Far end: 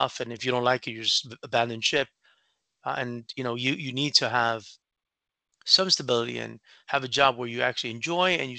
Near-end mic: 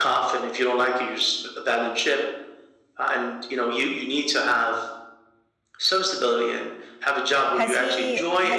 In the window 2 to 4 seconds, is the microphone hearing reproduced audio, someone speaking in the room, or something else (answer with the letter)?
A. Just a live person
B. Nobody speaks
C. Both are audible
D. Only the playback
D